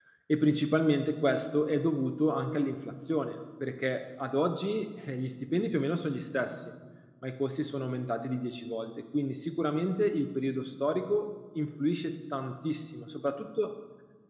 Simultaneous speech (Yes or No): No